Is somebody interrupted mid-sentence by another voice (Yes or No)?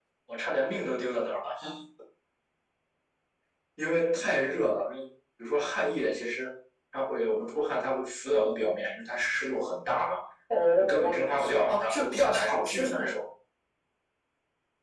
Yes